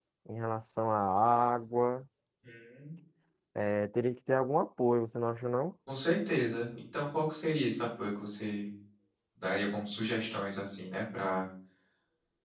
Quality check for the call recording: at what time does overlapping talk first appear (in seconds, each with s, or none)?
none